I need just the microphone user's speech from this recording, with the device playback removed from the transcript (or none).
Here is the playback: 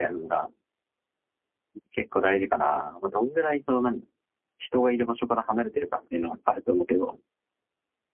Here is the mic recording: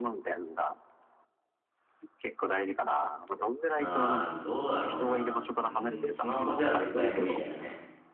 ああ、どうだろうな。うん、スマホじゃ絶対無理だよね。